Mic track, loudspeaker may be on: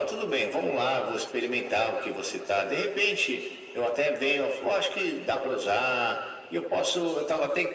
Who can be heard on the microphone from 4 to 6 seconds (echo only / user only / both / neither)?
echo only